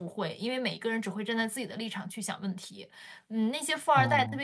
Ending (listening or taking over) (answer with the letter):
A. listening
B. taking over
A